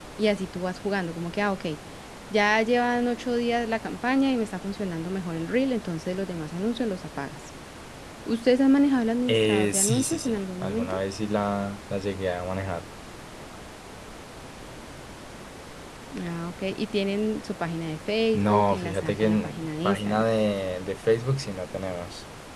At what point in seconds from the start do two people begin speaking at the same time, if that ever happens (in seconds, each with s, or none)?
9.3 s